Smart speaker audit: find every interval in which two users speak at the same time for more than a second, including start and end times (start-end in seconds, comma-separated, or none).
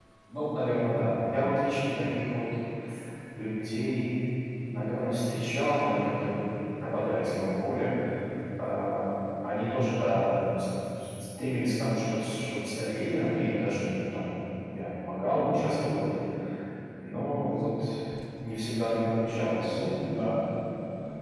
none